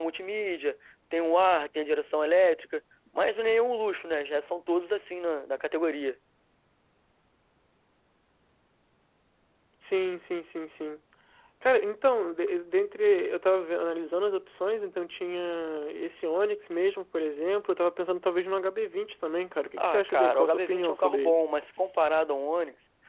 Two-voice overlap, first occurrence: 19.8 s

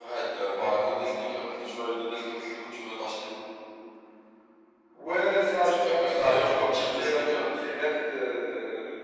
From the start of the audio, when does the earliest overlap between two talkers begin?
5.6 s

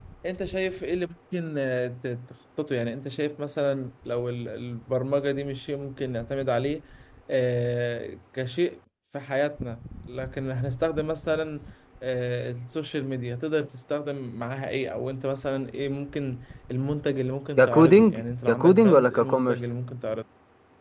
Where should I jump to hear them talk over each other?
17.6 s

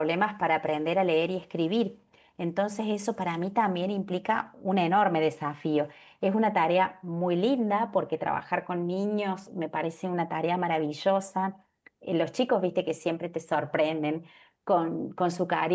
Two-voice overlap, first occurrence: none

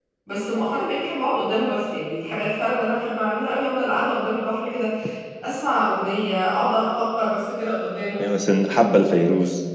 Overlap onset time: none

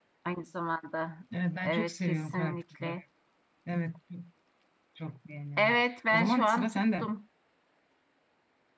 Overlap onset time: 1.6 s

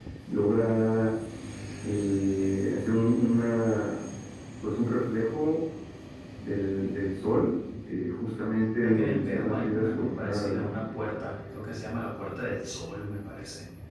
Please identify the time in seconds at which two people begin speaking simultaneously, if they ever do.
8.8 s

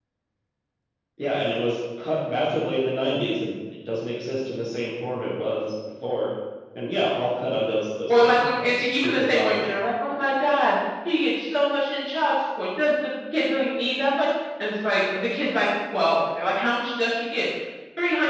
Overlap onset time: 8.1 s

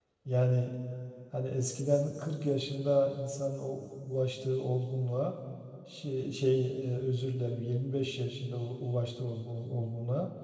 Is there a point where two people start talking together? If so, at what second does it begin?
none

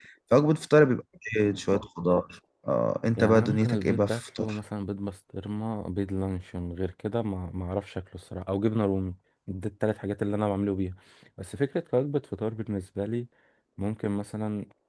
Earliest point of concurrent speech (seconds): 3.2 s

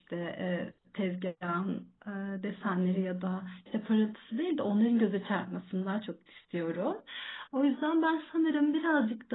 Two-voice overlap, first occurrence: none

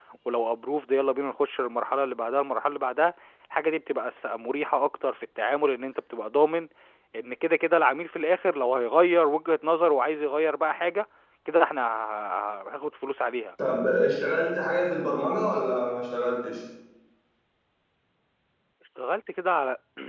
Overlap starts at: none

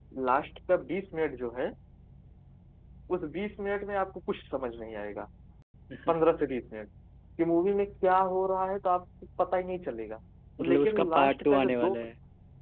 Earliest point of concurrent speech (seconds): 10.7 s

